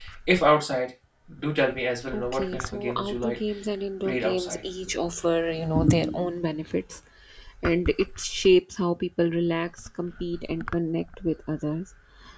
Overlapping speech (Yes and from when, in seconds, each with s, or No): Yes, from 2.1 s